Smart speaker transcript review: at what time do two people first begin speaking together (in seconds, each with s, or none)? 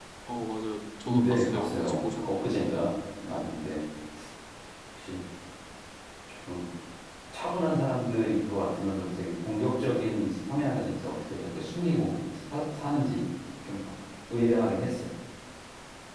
1.1 s